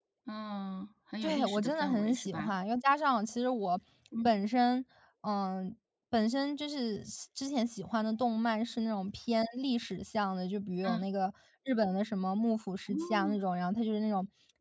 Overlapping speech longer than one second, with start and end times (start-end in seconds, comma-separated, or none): 1.2-2.5